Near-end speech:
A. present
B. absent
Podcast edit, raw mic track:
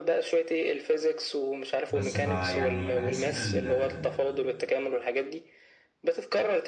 A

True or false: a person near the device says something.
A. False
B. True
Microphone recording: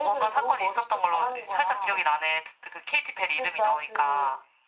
A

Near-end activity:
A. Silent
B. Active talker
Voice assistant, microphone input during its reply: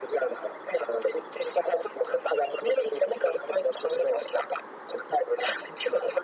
A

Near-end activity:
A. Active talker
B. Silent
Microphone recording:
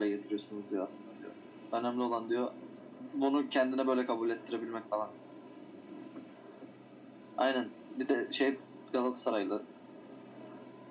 B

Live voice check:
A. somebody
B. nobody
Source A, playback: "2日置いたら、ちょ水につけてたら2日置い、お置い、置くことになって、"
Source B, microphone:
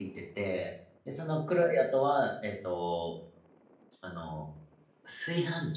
A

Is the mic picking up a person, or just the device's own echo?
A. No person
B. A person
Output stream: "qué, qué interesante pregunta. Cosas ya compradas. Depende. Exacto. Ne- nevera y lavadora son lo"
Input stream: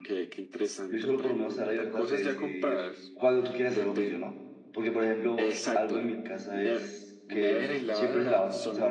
B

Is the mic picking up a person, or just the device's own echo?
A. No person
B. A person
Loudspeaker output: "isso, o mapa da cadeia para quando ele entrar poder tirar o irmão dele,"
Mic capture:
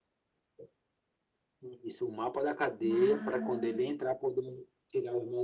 B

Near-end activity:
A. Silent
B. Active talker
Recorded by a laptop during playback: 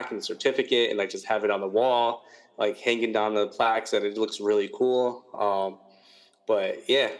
A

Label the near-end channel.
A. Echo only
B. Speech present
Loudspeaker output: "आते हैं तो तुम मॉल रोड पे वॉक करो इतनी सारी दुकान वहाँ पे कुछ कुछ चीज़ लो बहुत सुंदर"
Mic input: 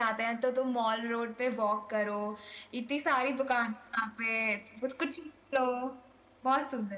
A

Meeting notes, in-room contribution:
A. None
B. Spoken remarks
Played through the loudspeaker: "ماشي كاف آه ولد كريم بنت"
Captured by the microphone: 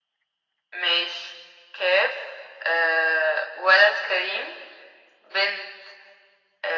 A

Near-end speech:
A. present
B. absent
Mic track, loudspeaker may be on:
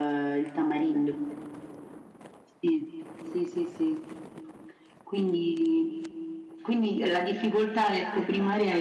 B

